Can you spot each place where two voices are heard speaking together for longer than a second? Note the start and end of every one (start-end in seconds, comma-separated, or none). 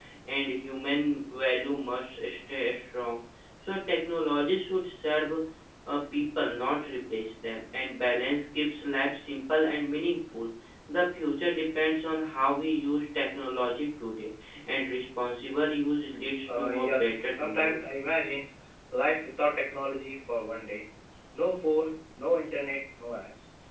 16.6-17.8